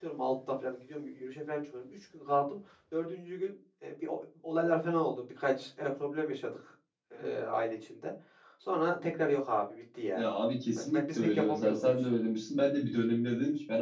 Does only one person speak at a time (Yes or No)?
No